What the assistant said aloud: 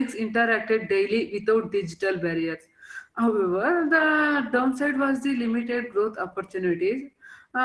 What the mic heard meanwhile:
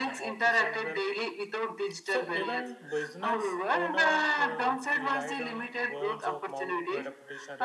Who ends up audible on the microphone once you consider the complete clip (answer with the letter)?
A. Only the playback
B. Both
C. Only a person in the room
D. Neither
B